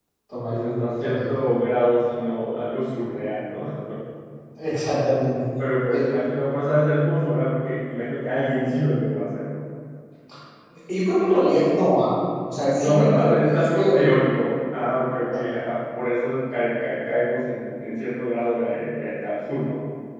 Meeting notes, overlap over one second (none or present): present